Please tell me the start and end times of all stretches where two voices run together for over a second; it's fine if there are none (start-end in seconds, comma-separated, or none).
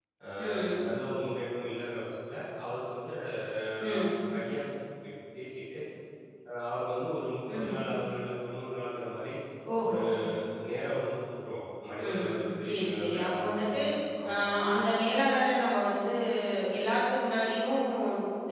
12.1-13.8